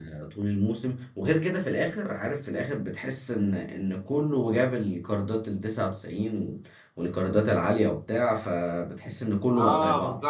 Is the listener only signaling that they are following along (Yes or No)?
No